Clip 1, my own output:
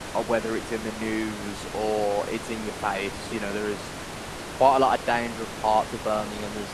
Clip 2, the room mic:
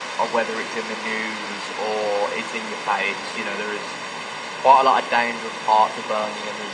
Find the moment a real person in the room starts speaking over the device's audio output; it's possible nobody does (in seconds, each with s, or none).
none